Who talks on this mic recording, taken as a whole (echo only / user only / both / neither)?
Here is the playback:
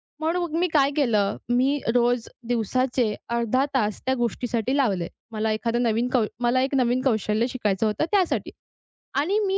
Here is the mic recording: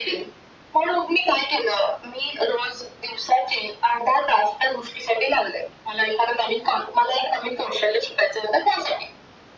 echo only